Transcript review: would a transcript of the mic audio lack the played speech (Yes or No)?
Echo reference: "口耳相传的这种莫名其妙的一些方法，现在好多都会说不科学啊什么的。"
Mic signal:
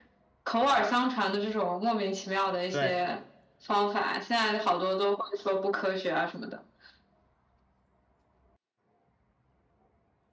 No